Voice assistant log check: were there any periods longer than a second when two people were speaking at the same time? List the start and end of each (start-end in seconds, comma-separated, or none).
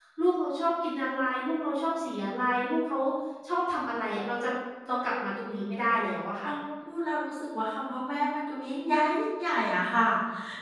none